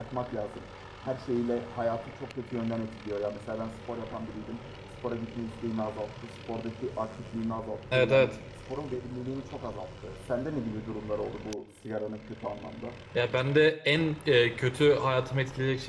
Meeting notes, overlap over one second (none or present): none